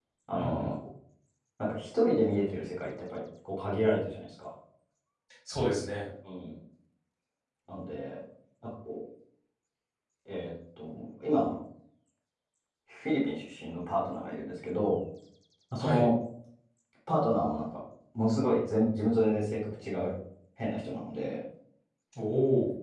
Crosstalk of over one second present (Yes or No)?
No